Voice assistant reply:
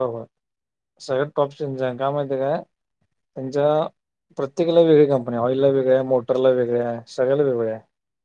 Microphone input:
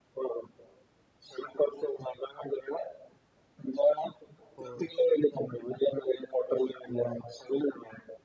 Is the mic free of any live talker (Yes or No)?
No